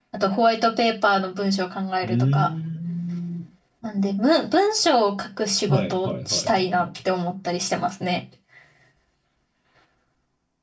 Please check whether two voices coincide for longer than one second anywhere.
Yes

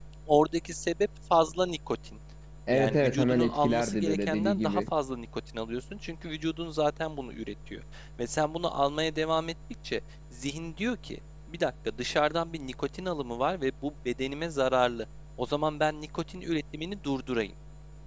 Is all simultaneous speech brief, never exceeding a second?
No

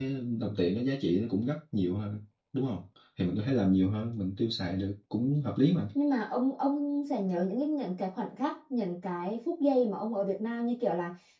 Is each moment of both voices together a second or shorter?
Yes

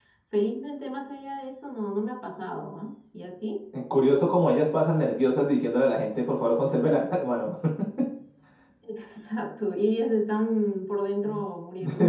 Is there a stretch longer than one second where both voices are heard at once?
No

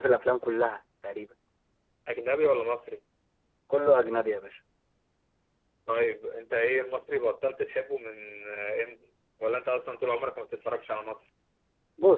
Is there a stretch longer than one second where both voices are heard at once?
No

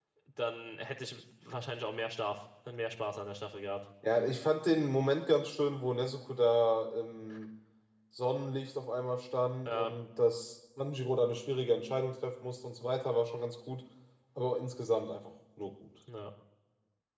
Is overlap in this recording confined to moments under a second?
Yes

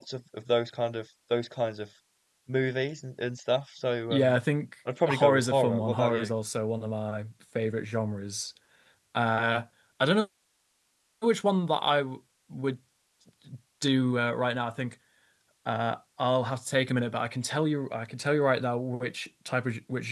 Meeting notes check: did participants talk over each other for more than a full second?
Yes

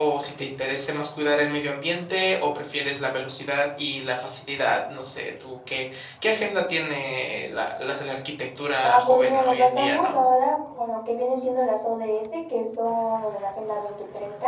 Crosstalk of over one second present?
Yes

